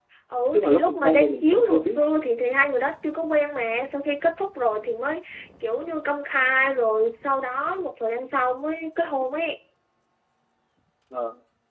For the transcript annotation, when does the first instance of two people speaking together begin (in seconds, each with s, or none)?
0.5 s